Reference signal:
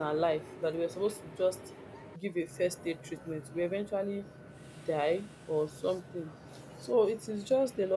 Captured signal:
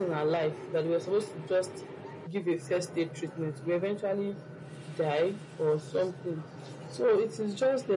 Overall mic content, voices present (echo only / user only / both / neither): echo only